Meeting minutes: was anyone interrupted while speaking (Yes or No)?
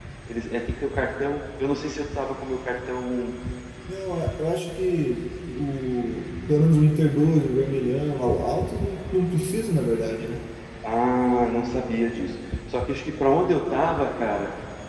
No